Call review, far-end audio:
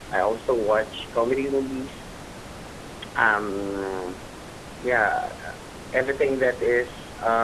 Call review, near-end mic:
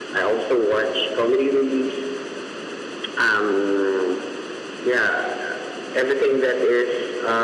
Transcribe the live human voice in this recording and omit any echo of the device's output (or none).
none